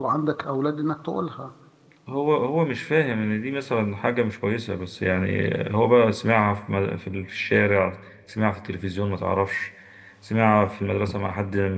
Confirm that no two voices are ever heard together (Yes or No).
Yes